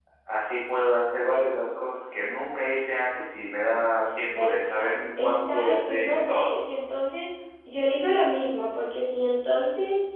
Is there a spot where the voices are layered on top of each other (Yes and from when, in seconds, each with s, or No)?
Yes, from 4.3 s